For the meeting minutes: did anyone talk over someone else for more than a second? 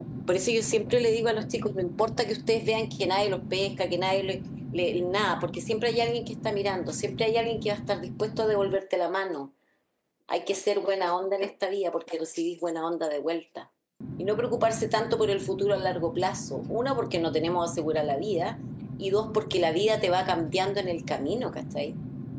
No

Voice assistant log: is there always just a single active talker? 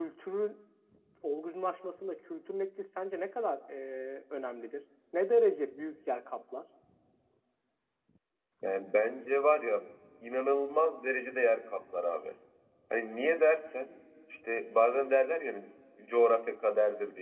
Yes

